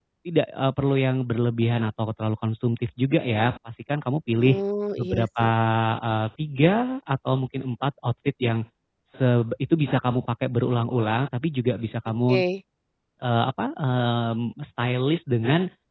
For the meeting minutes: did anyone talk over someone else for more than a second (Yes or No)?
No